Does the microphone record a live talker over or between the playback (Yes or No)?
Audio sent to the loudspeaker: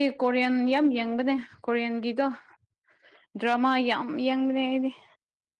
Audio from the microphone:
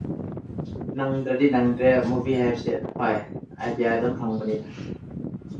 Yes